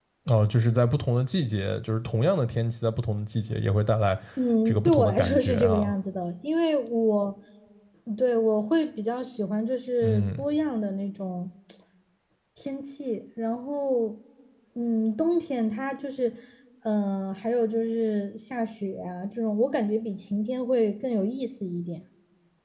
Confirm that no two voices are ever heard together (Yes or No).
No